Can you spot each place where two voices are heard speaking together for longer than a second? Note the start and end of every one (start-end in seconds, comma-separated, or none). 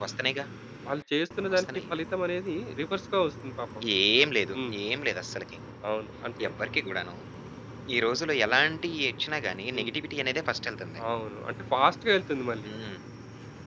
none